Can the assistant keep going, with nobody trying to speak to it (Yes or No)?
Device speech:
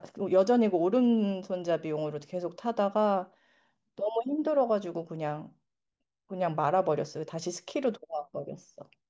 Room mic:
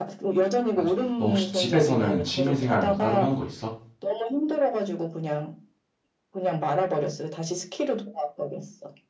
No